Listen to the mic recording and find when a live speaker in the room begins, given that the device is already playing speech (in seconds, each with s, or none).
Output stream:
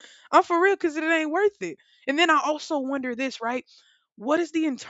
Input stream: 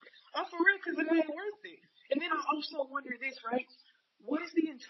none